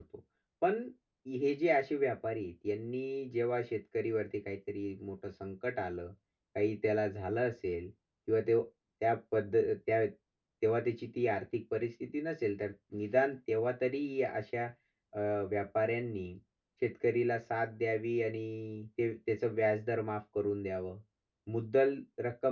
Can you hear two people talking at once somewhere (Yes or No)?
No